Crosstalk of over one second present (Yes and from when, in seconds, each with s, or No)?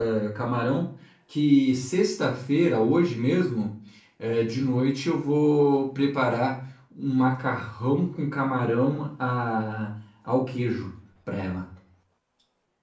No